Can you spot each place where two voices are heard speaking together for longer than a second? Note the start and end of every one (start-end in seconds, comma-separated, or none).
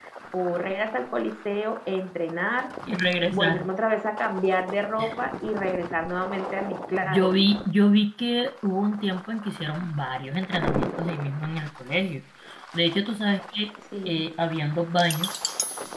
none